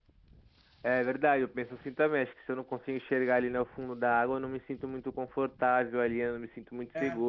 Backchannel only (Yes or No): Yes